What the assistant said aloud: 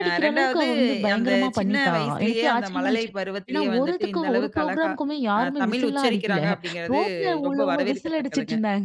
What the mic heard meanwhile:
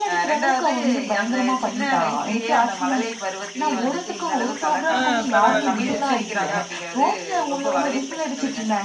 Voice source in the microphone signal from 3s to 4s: echo only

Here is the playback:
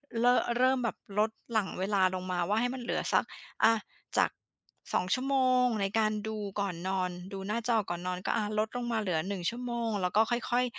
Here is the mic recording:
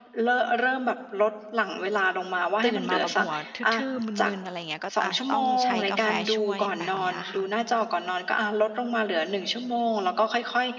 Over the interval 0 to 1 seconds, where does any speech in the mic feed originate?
echo only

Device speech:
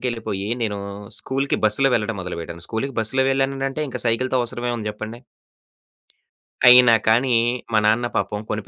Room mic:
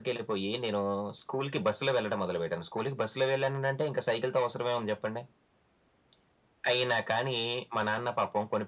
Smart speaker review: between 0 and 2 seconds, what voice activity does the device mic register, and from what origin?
echo only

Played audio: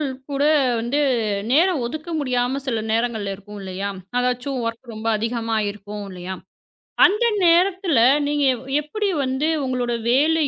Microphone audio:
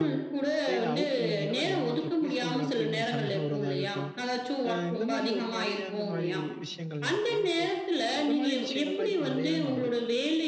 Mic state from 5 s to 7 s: both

